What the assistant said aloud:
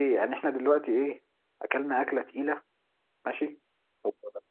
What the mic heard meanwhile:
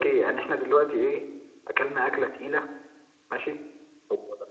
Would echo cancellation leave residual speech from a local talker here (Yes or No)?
No